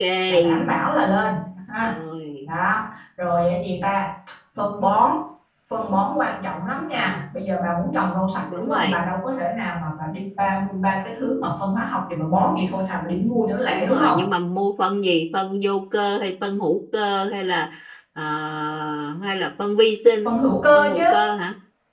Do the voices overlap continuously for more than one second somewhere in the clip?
No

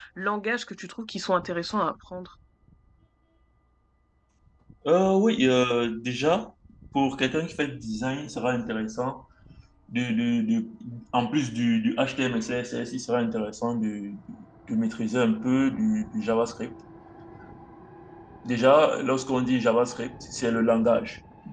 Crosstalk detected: No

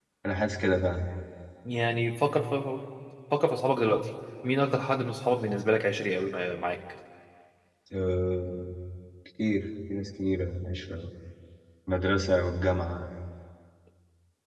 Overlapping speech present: No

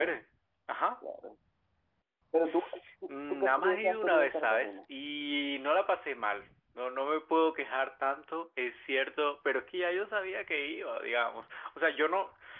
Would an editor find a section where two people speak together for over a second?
Yes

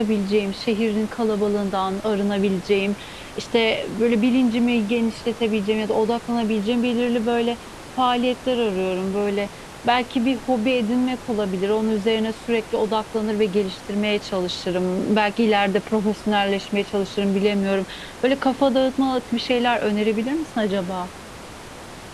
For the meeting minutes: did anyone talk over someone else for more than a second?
No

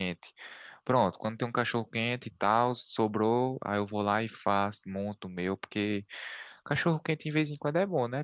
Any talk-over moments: No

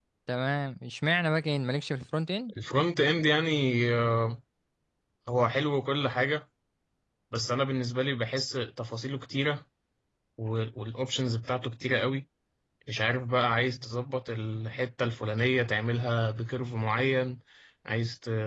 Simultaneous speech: No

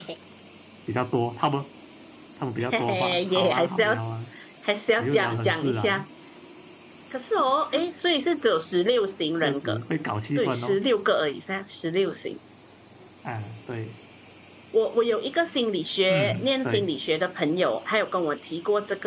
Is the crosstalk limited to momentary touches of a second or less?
No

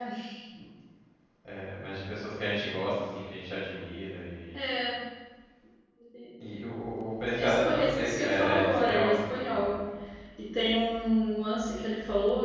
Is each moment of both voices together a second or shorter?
No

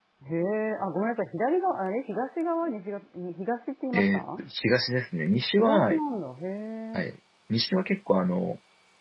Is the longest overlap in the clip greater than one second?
No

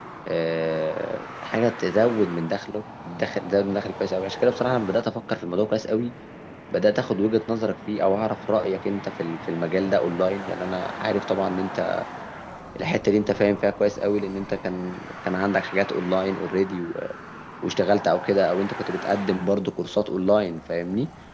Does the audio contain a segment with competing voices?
No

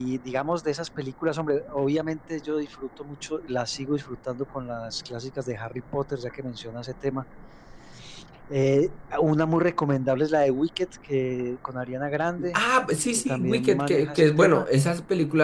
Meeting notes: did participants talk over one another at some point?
Yes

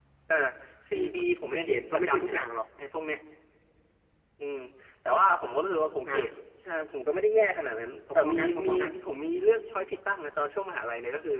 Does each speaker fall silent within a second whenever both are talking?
No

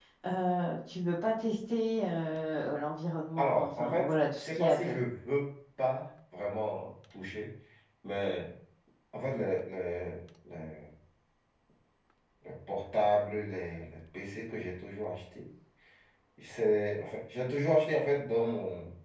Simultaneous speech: Yes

